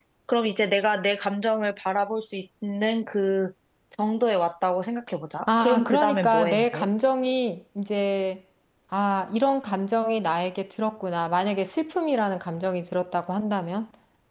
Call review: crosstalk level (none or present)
present